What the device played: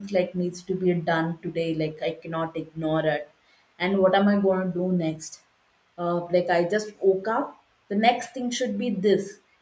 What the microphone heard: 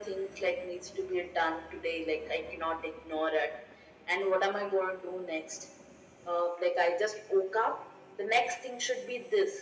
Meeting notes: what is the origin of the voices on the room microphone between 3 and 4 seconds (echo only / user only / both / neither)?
echo only